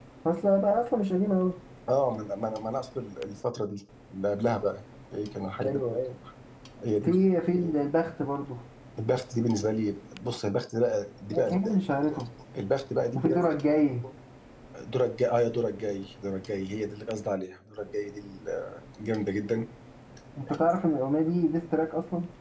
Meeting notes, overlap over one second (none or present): none